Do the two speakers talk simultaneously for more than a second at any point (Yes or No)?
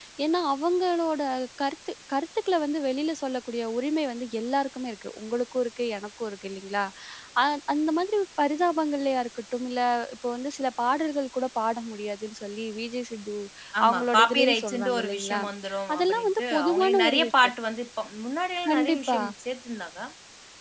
Yes